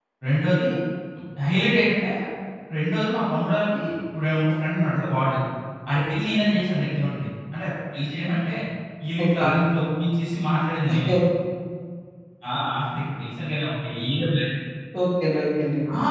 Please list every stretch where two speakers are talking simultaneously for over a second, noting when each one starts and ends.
none

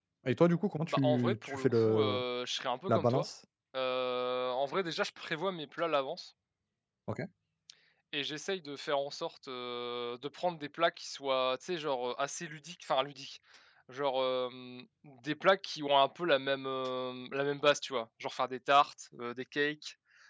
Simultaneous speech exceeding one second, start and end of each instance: 0.9-2.2

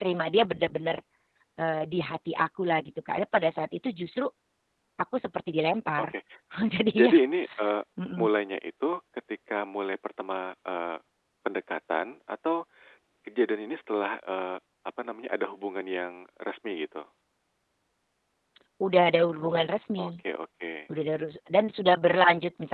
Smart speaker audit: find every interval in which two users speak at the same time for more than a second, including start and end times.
none

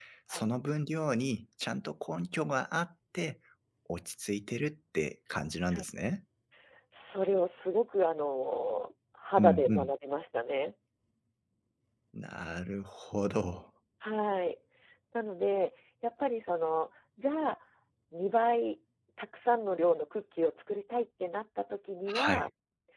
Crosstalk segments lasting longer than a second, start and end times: none

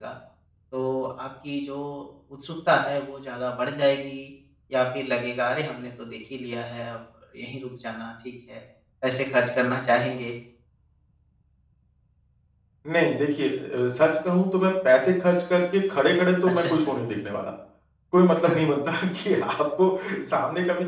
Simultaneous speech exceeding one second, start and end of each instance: none

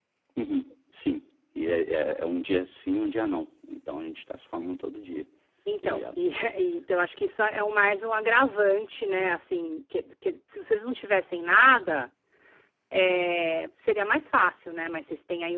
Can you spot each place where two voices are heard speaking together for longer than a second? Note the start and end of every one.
none

